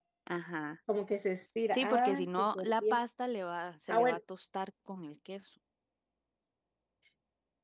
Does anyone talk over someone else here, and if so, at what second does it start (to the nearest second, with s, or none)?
2 s